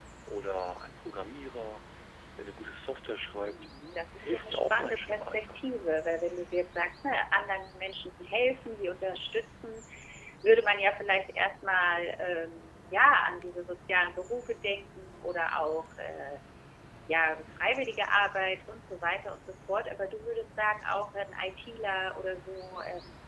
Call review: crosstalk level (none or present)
present